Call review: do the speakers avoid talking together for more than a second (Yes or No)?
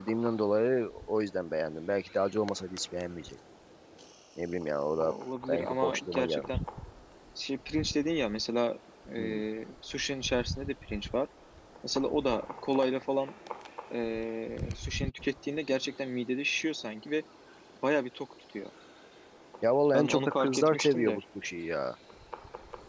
No